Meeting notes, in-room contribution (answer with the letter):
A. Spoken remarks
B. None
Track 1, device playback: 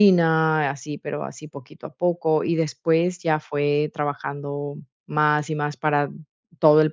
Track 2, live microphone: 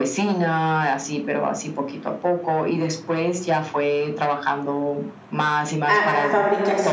A